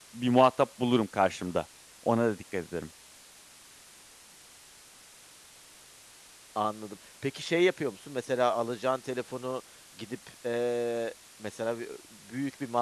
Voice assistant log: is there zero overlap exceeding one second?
Yes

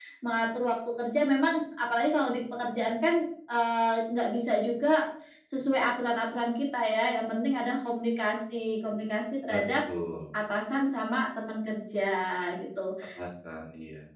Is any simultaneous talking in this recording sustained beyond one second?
No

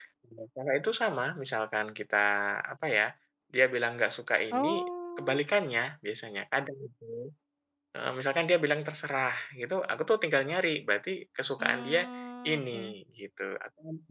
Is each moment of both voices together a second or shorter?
Yes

